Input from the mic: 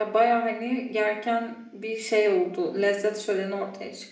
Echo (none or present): none